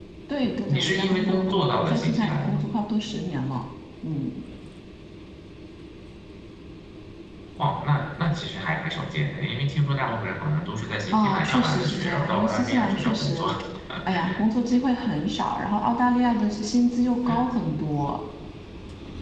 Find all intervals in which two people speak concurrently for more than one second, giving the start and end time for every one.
0.7-2.7, 11.1-13.4

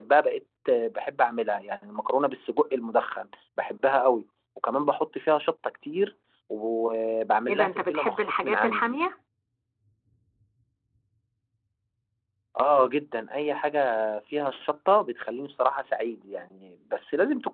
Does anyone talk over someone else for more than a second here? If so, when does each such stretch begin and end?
7.5-9.0

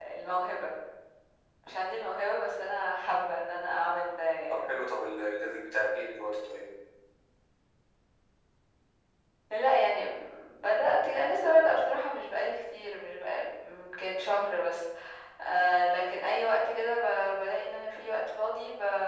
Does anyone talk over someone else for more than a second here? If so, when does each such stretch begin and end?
none

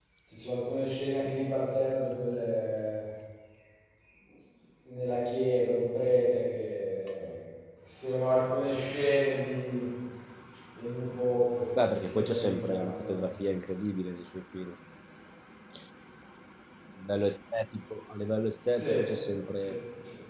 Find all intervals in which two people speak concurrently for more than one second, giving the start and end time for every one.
12.0-13.3

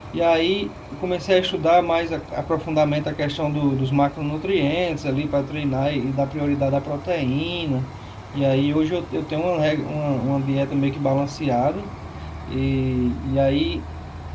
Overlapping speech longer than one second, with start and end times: none

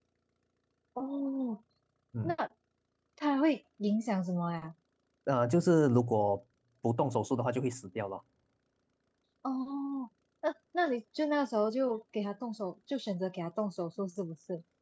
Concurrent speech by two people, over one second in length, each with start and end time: none

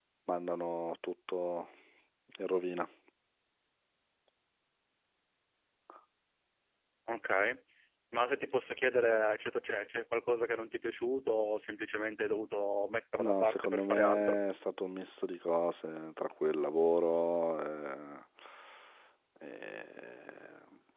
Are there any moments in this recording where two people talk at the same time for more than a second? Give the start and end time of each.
13.2-14.4

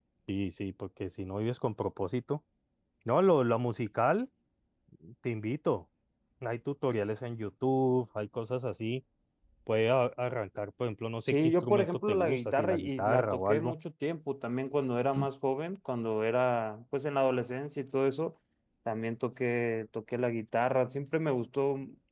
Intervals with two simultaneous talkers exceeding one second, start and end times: 11.3-13.7

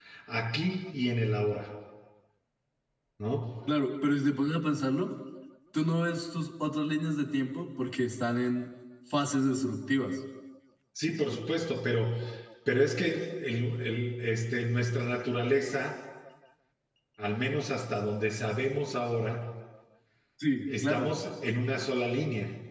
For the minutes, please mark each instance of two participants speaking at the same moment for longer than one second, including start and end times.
none

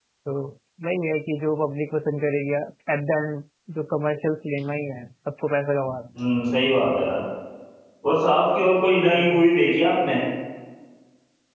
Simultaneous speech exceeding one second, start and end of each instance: none

